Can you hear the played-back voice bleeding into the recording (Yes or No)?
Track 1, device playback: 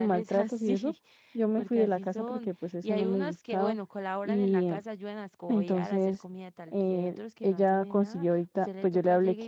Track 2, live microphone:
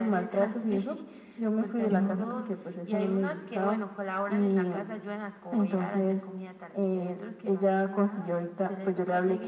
Yes